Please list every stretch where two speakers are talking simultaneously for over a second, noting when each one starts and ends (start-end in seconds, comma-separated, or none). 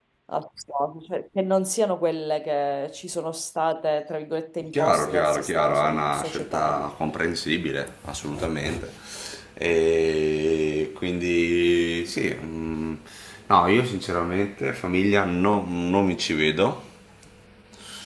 4.8-6.9